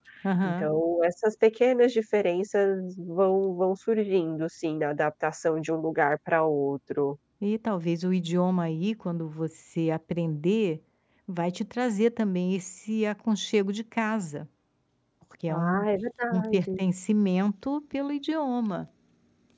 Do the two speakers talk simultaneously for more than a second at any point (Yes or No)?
No